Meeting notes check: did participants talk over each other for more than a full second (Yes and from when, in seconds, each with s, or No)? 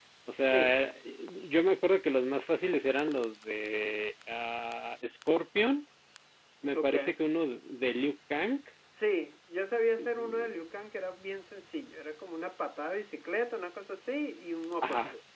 No